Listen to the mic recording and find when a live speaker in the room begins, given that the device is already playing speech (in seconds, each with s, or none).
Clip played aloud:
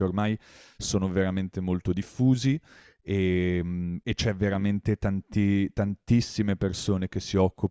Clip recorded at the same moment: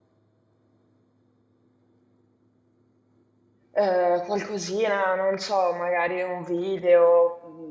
3.7 s